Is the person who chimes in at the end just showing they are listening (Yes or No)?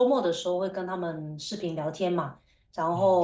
Yes